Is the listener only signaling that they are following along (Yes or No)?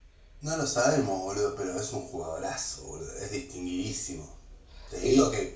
Yes